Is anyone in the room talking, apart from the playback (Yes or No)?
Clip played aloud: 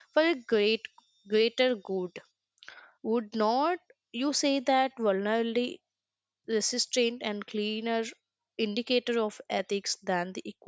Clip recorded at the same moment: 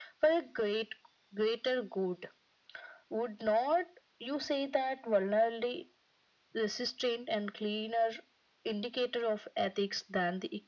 No